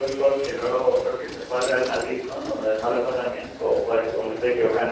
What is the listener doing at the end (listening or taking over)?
taking over